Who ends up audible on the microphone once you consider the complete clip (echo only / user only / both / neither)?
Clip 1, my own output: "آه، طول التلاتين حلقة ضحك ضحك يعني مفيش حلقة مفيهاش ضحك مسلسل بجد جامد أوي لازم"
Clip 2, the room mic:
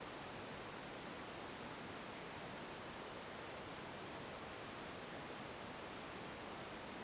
neither